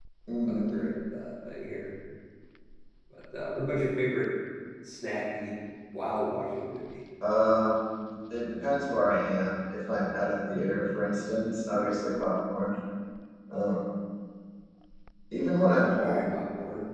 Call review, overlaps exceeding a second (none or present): none